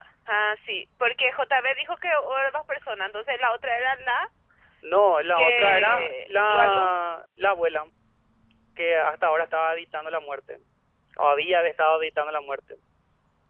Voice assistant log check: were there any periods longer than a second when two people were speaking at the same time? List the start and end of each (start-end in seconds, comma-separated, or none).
5.3-7.1